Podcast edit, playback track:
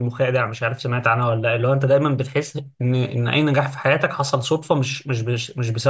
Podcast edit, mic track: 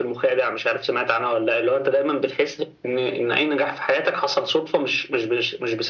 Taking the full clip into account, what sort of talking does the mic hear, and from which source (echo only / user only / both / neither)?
echo only